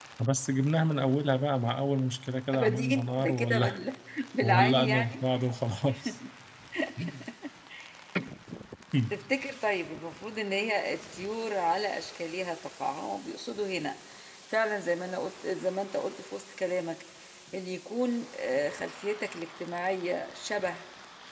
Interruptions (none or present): present